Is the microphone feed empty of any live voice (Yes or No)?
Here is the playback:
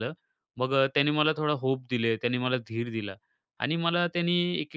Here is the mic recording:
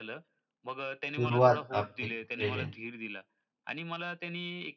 No